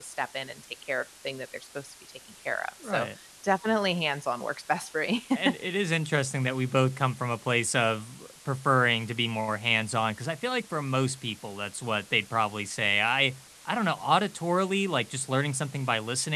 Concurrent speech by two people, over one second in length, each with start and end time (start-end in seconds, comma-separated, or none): none